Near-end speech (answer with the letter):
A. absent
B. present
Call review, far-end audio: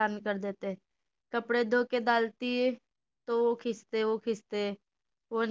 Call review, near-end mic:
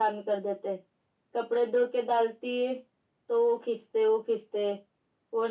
A